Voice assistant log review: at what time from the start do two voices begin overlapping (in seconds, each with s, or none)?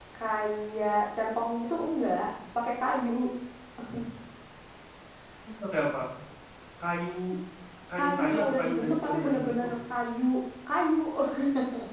8.0 s